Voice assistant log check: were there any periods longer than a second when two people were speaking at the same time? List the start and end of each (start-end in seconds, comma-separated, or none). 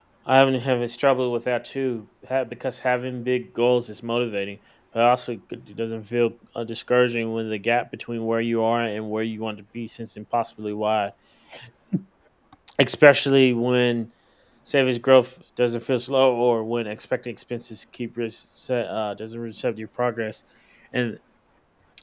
none